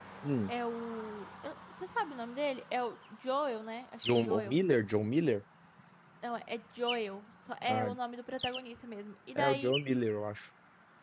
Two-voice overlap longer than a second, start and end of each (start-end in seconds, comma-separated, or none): none